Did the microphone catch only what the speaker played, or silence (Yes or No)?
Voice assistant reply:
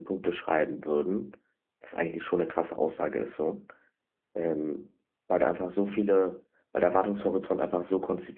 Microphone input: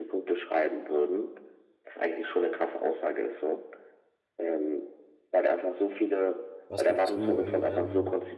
No